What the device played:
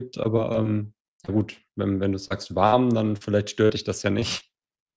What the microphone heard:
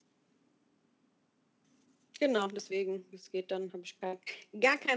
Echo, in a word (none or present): none